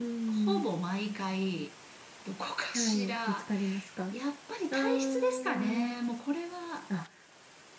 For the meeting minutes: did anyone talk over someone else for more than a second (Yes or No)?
Yes